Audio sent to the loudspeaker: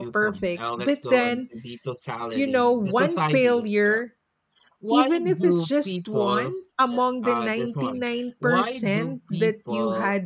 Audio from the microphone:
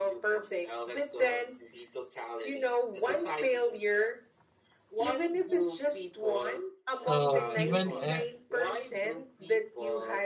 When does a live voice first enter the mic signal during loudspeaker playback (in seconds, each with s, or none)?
6.9 s